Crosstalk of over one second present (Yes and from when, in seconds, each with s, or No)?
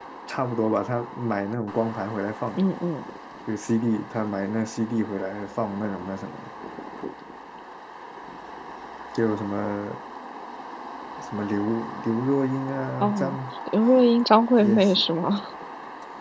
No